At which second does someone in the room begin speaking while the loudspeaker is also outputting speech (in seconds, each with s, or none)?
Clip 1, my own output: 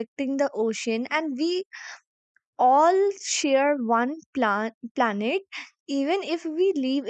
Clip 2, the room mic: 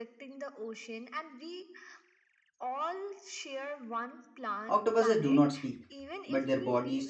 4.7 s